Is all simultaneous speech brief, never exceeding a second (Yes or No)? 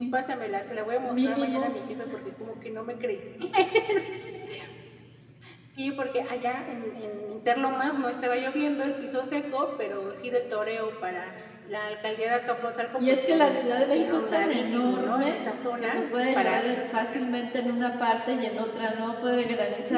No